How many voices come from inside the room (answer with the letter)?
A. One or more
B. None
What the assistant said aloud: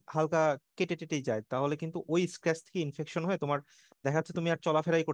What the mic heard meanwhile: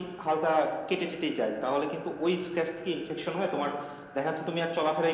B